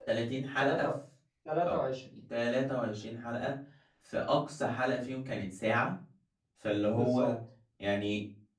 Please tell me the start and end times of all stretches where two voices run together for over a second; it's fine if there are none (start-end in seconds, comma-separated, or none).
none